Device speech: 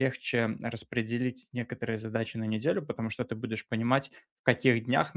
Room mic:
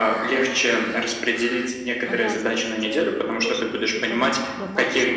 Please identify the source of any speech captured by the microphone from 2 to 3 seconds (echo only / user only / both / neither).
both